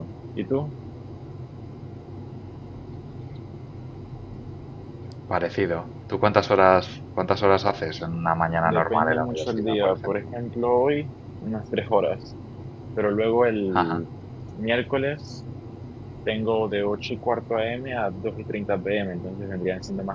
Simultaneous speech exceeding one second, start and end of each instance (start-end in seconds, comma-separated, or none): 8.7-10.2